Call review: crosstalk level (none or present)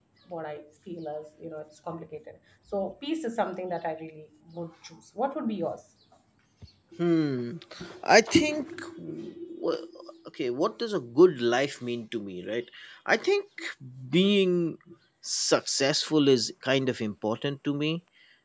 none